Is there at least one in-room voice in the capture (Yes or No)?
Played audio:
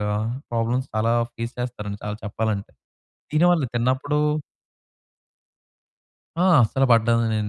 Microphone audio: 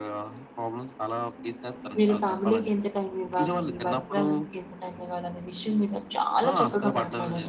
Yes